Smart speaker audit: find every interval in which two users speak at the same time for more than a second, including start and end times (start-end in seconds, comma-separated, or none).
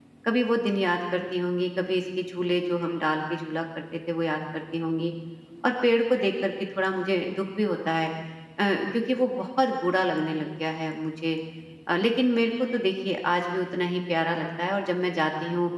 none